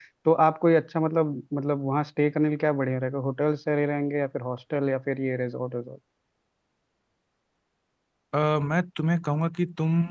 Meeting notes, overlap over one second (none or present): none